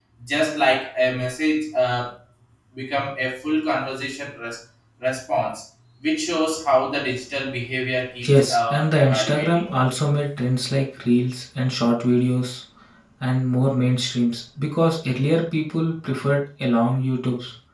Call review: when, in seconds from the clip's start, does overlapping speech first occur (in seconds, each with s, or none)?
8.2 s